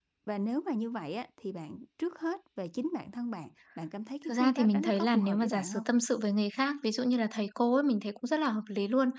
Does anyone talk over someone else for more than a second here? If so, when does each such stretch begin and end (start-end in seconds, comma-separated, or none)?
4.3-5.9